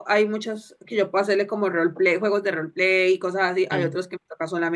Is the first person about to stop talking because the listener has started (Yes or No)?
No